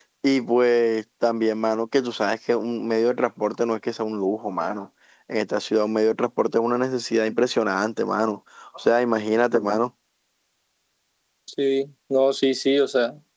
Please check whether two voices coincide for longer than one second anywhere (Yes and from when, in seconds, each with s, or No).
No